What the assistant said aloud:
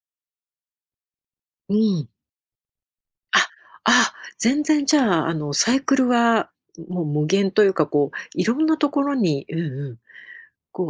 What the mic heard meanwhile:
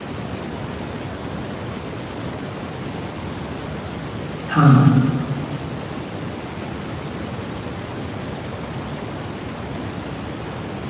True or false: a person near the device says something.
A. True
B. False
A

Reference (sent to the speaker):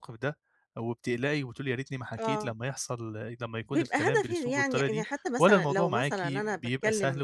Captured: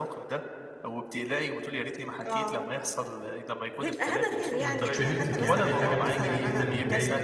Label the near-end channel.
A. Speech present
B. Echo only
A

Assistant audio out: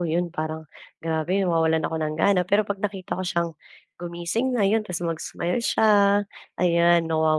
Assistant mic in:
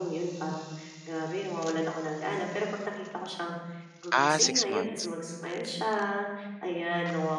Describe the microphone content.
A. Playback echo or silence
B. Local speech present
B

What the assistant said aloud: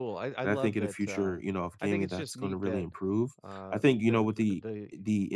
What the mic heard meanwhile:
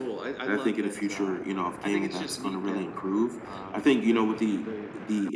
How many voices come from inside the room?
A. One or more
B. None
B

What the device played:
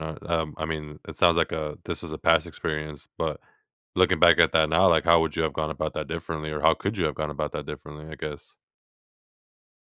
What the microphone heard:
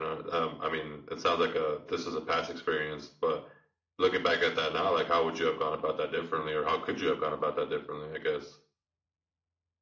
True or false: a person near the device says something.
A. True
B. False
B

